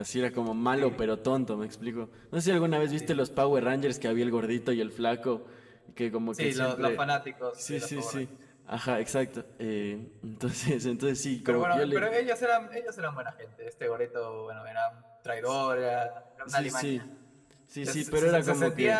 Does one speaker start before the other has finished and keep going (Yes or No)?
Yes